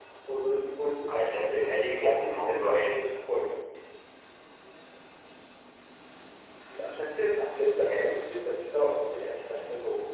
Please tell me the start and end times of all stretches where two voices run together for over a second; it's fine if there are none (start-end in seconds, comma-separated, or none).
1.1-3.0